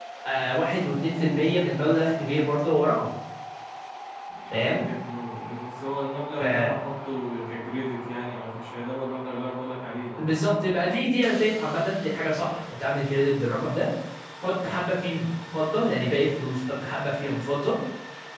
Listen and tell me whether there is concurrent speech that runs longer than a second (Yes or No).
No